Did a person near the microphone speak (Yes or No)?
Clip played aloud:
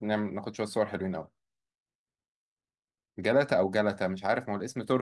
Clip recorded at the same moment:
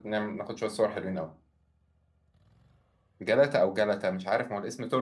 No